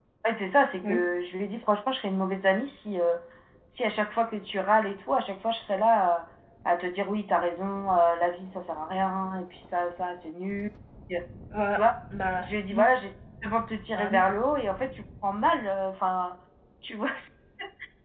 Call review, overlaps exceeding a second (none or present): none